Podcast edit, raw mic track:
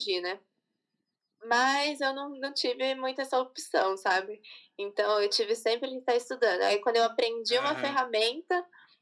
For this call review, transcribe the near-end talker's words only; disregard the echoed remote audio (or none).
Aham.